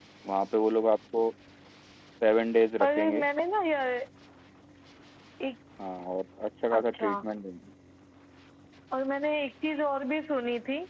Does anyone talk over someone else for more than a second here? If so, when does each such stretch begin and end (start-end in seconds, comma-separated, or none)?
none